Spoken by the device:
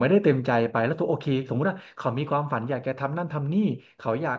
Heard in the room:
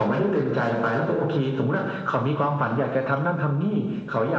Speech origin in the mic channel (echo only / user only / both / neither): echo only